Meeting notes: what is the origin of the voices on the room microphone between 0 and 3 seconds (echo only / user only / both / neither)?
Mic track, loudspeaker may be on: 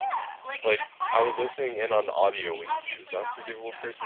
both